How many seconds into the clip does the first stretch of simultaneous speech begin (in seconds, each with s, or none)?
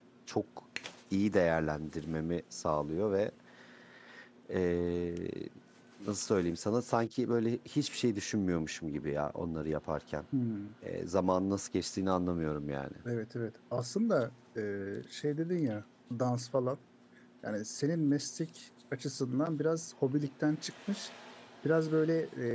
none